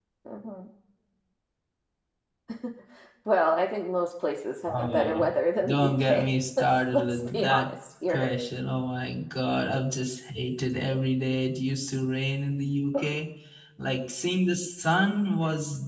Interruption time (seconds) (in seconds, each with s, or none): 4.7 s